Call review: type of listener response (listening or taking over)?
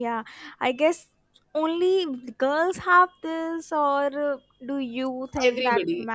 taking over